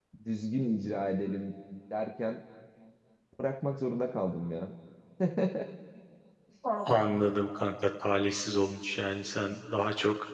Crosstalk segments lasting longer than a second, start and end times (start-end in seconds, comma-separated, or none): none